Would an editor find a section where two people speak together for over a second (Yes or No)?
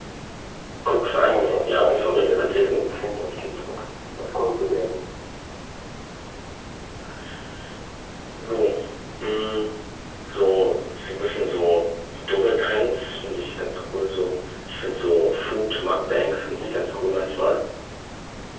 Yes